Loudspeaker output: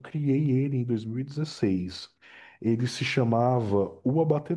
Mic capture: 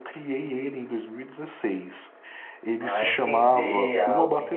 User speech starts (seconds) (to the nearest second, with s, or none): 3 s